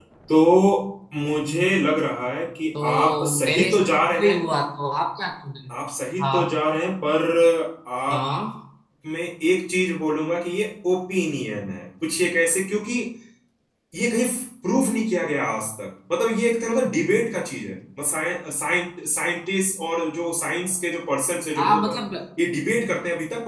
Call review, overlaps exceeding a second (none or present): present